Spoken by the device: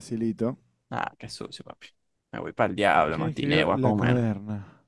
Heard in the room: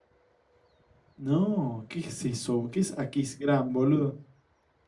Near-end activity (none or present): present